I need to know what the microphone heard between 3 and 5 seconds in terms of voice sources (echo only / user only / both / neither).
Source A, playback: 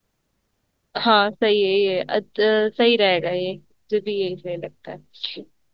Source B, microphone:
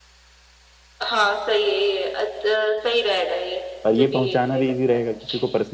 both